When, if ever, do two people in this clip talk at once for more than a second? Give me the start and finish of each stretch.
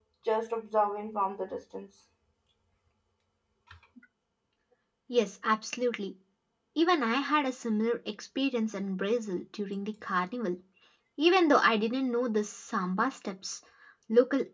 none

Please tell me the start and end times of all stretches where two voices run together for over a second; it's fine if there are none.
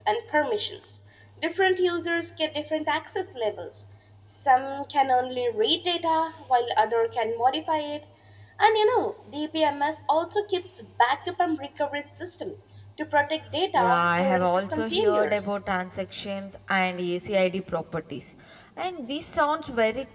13.8-15.6

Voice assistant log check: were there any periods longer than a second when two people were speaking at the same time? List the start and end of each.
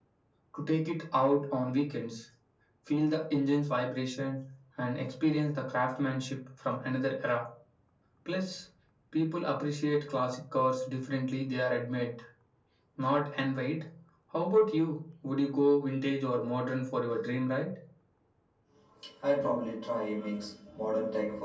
none

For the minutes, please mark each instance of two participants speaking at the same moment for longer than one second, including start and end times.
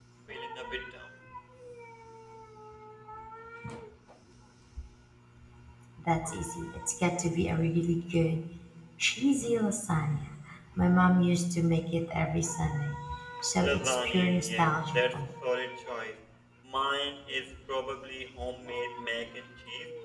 13.6-15.2

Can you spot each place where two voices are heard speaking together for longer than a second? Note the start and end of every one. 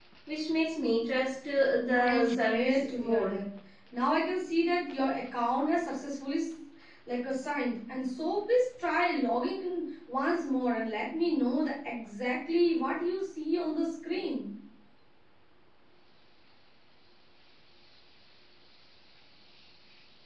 1.9-3.4

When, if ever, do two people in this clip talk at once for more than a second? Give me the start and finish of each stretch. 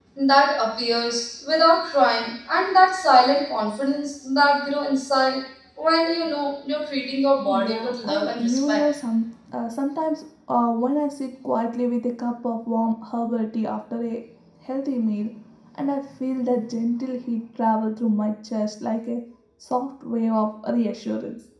7.5-8.9

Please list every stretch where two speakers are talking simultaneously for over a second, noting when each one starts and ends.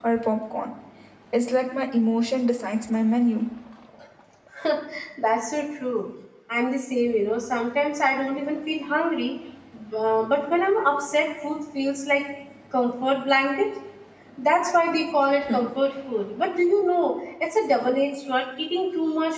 none

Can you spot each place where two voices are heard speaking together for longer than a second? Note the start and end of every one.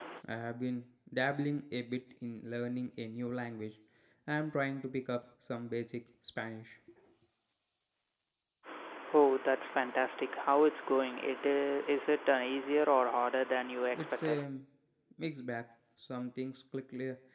none

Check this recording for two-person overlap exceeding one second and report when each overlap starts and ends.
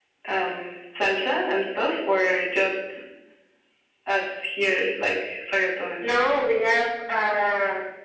none

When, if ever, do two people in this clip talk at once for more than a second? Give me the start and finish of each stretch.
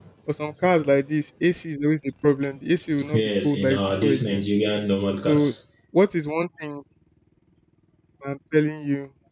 3.1-4.4

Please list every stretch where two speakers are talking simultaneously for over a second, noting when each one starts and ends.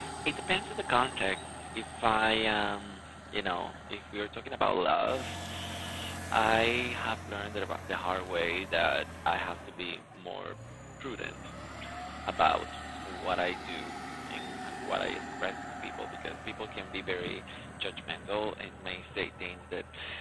none

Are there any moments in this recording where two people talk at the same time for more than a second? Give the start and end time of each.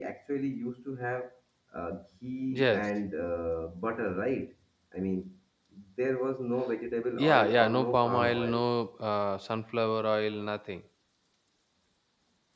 7.2-8.7

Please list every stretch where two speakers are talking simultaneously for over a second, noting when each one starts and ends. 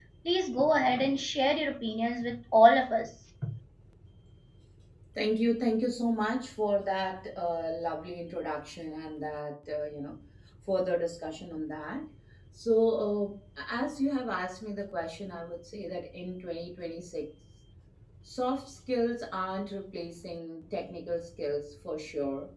none

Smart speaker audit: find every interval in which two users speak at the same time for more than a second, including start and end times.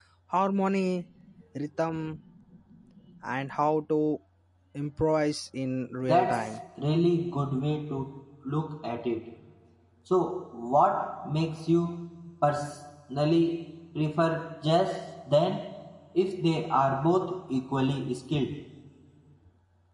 none

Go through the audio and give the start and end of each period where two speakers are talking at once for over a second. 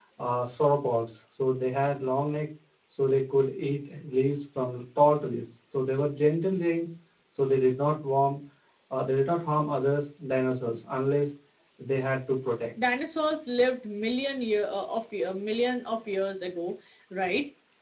none

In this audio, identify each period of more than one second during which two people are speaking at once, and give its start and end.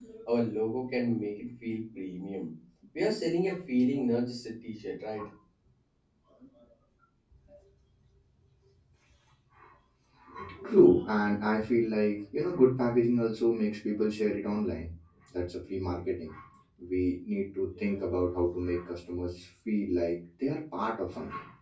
none

